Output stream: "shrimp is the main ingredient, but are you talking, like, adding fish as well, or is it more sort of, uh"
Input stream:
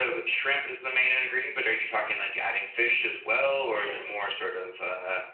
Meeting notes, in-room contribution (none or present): present